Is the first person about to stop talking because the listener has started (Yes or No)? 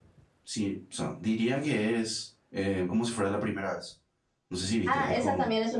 Yes